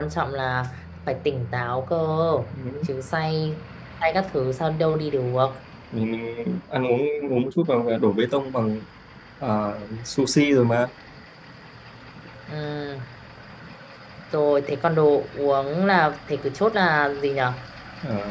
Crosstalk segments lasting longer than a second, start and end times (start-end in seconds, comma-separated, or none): none